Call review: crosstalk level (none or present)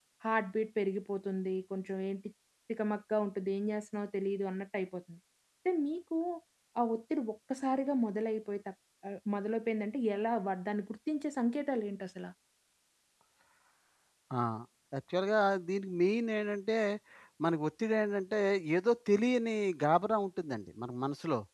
none